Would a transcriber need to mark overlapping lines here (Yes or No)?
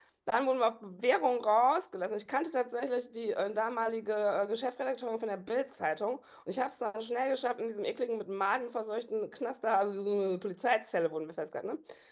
No